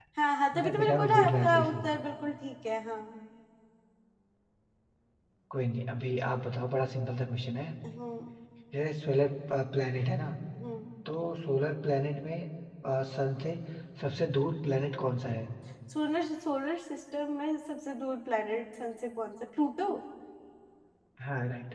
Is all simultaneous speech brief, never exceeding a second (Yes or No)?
No